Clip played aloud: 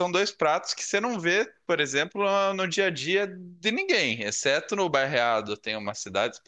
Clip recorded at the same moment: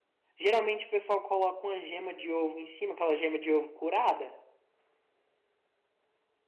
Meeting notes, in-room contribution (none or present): present